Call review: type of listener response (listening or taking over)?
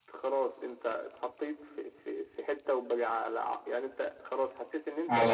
listening